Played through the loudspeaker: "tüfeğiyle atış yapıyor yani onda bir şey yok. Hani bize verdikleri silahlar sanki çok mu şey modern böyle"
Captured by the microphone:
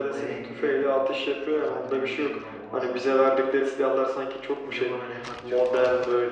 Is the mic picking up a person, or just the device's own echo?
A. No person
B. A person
B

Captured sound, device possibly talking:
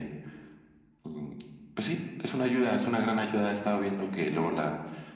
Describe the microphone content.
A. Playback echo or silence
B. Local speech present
A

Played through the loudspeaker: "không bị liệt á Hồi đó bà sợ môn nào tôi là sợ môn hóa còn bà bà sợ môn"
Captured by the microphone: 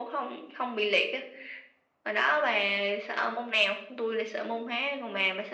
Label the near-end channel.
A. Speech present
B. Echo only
B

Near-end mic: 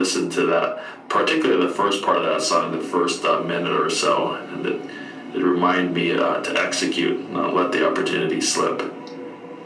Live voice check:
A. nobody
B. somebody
A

